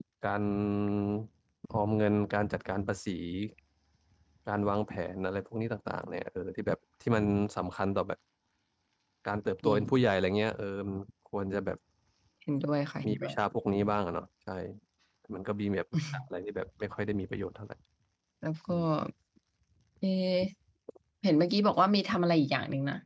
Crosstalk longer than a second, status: none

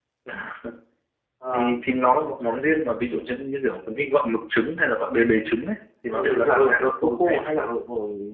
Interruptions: present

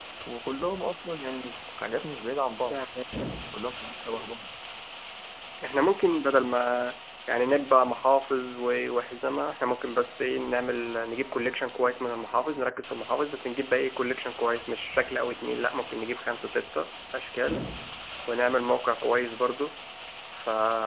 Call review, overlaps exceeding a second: none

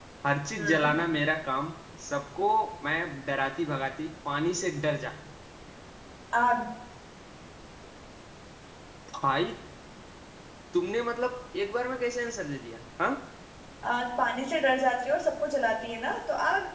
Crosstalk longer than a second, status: none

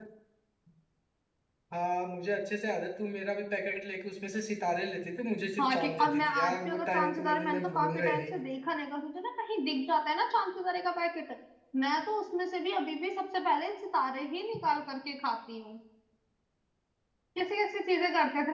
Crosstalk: present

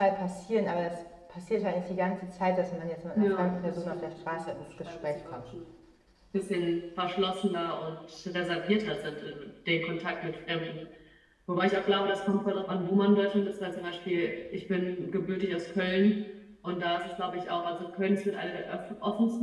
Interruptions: present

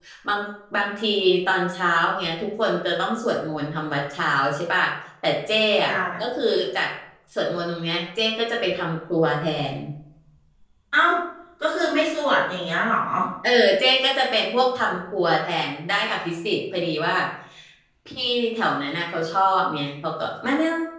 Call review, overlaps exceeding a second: none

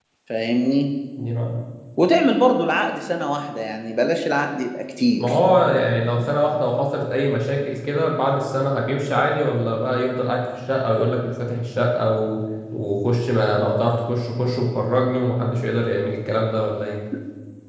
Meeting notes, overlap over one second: none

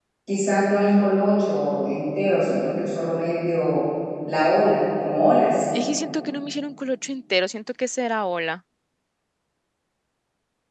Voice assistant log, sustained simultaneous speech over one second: none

